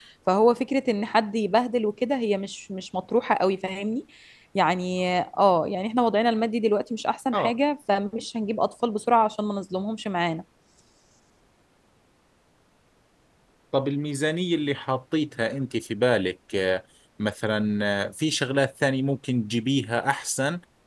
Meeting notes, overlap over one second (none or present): none